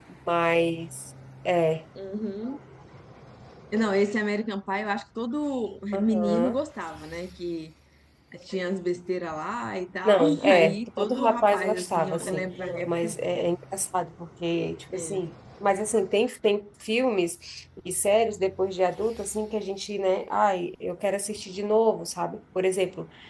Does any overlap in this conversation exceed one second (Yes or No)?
Yes